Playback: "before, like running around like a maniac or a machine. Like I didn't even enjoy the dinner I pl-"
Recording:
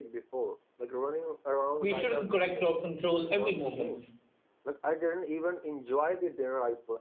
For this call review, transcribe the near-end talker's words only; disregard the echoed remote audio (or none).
We shouldn't correct or control every movement.